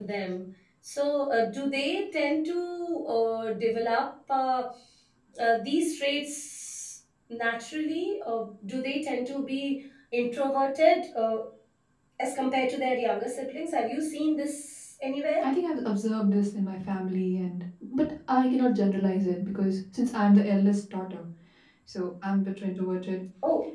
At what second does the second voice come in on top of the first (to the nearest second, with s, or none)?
none